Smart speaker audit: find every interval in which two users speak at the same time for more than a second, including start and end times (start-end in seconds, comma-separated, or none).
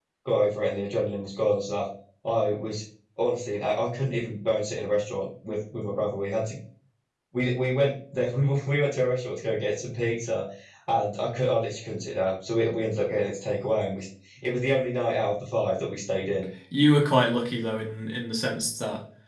none